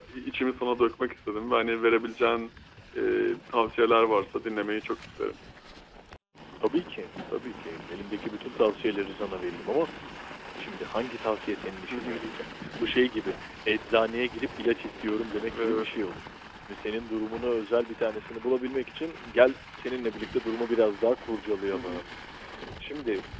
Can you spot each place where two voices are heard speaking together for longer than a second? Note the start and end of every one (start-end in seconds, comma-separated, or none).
none